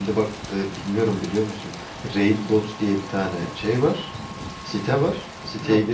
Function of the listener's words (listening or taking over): listening